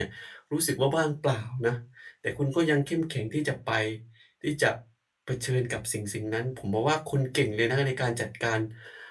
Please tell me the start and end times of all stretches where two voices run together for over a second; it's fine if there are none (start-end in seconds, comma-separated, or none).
none